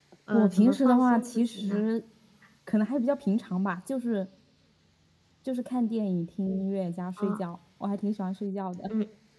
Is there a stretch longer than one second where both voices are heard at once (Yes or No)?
Yes